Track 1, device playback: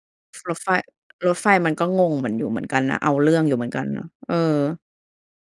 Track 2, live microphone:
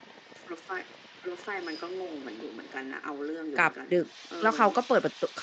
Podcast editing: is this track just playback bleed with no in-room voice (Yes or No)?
No